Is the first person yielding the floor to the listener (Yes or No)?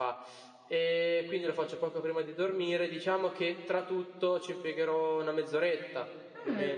Yes